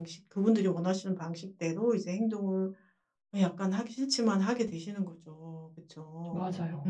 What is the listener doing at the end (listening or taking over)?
listening